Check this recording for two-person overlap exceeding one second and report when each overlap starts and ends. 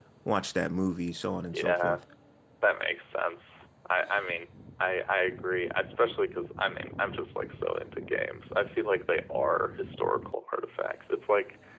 none

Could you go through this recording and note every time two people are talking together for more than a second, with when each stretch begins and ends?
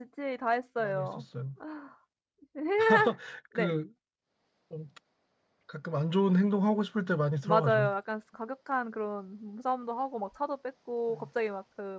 none

